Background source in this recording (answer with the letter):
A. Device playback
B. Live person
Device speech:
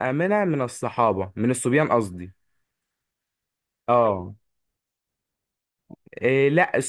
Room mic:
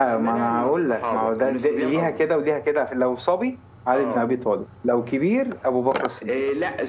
A